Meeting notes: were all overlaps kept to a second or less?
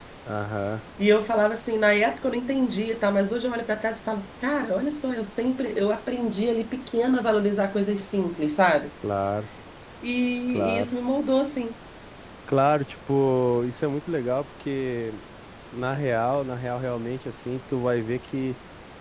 Yes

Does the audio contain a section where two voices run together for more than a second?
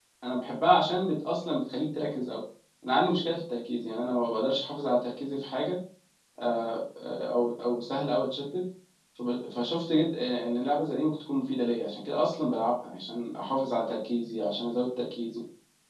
No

